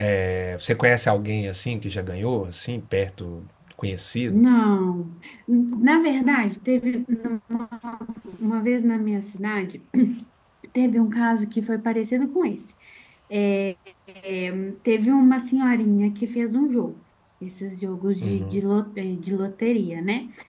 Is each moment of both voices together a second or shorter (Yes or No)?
Yes